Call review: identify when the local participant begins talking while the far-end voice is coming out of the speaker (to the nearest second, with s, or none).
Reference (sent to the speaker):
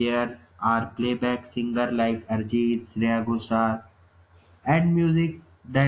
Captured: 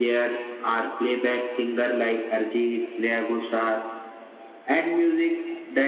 none